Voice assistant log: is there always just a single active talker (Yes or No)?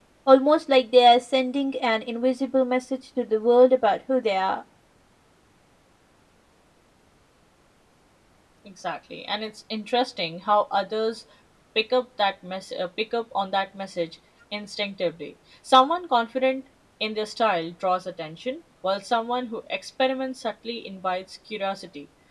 Yes